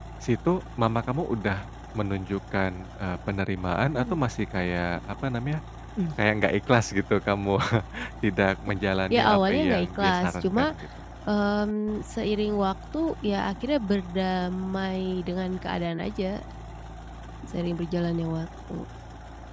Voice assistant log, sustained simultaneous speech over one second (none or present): present